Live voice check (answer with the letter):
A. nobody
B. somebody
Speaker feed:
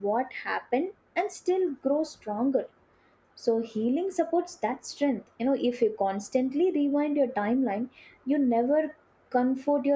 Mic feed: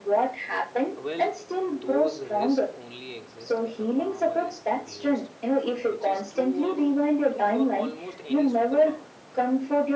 B